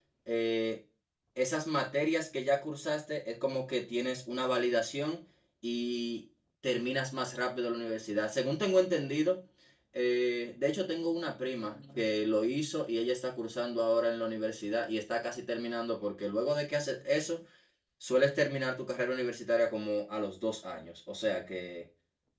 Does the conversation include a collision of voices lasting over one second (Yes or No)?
No